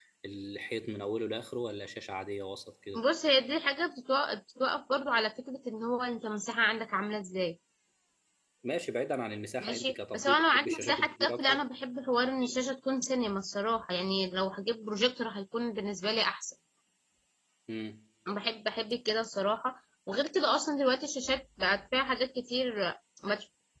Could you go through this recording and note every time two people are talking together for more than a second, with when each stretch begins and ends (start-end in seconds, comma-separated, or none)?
9.6-11.6